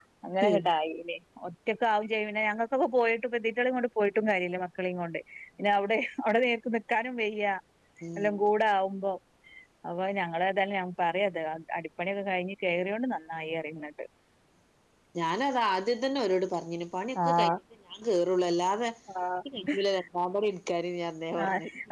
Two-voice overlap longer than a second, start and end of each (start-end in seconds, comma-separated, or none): none